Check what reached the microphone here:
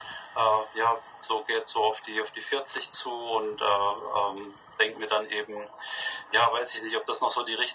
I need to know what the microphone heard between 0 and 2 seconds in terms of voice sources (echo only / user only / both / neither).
echo only